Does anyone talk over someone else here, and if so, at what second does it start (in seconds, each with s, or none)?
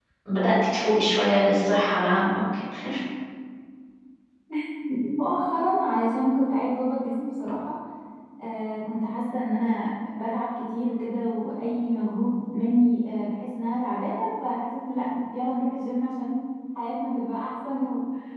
none